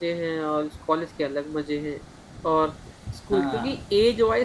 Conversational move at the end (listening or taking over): listening